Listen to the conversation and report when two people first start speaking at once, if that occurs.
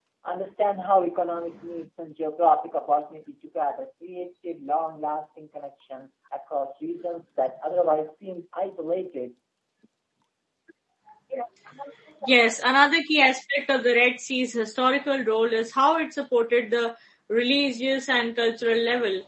none

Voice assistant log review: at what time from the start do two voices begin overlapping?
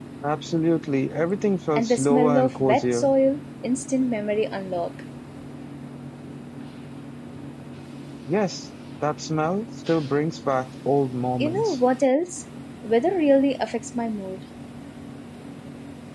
2 s

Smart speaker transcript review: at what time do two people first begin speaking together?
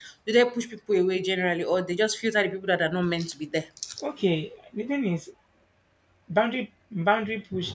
none

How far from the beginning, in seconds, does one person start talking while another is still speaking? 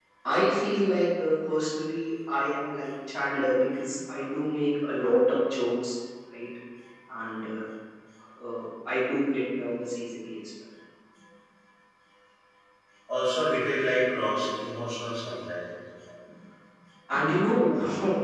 none

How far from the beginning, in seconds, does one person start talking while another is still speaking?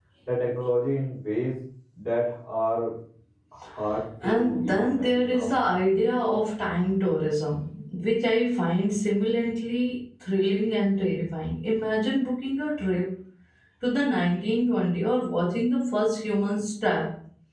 4 s

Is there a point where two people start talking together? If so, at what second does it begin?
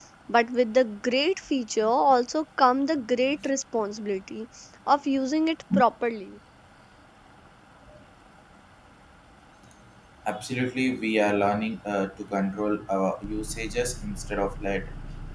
none

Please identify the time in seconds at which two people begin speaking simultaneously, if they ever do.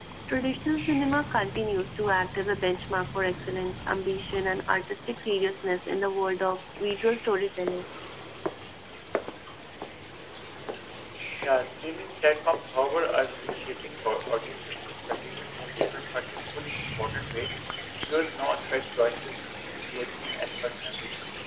none

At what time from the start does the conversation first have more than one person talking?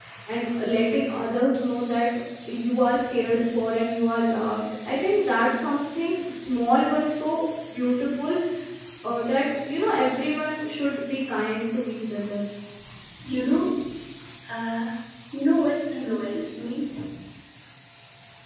none

